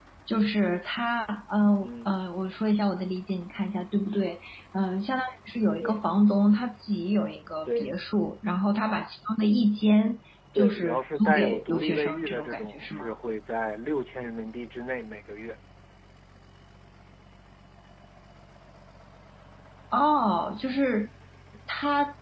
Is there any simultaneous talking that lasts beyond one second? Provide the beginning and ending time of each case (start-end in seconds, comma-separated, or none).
10.6-13.1